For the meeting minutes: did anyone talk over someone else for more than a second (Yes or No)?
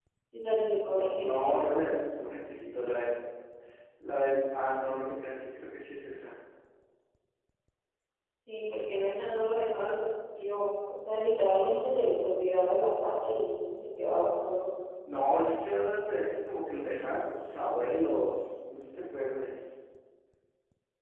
No